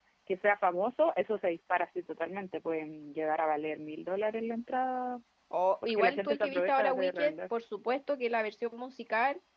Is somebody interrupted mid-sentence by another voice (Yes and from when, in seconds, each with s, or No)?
Yes, from 5.8 s